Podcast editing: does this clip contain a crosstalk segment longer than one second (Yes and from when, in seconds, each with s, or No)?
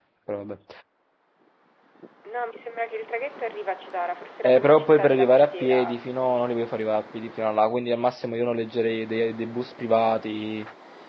Yes, from 4.4 s